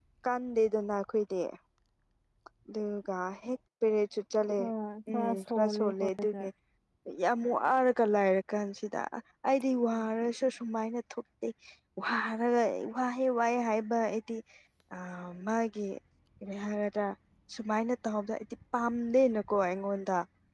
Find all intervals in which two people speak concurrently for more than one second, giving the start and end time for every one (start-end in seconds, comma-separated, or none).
5.1-6.4